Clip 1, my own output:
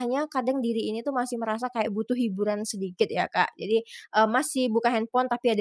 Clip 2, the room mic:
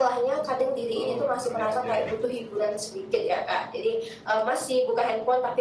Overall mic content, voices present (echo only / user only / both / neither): both